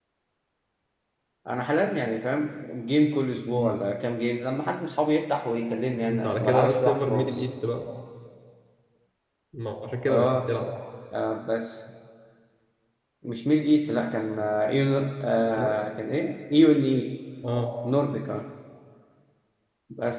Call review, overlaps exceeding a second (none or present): present